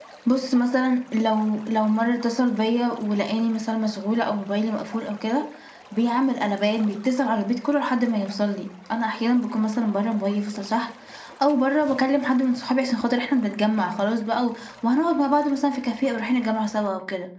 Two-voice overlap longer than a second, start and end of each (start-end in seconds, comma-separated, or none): none